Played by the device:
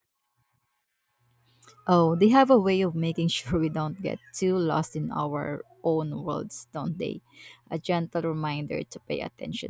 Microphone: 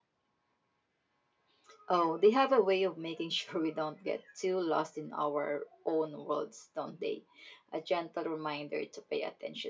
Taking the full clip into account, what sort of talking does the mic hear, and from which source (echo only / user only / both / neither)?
echo only